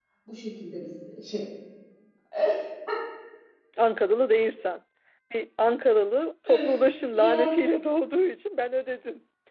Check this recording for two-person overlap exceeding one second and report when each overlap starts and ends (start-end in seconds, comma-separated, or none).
none